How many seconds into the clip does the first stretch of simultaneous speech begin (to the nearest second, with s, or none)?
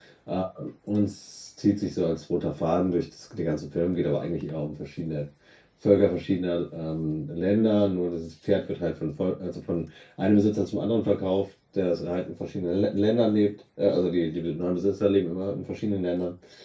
none